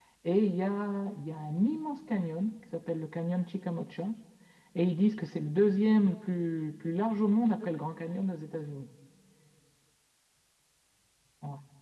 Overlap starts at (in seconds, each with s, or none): none